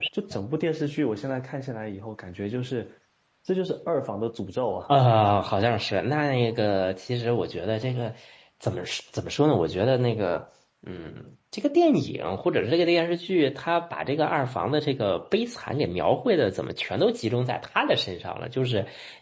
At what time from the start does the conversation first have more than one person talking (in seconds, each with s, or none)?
none